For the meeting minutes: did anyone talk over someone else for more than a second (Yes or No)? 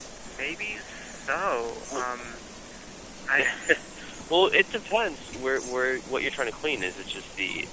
No